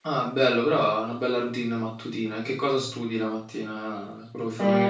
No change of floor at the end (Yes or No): No